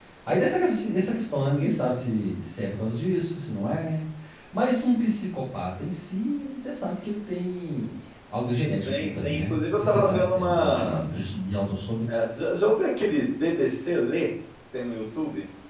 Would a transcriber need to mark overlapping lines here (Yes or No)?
Yes